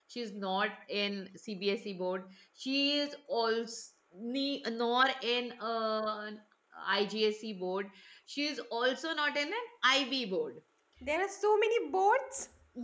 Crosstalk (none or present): none